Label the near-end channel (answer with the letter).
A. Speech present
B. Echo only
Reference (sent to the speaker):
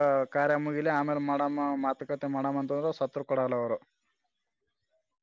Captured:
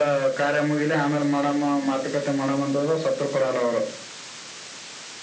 B